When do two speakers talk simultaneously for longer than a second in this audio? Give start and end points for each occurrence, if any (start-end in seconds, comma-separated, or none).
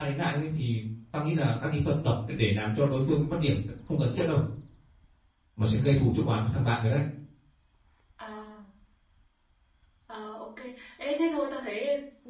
none